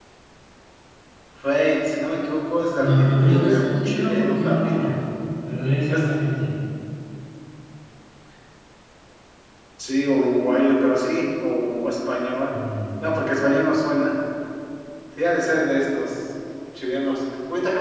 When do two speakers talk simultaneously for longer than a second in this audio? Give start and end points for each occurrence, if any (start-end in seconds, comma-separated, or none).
2.8-5.0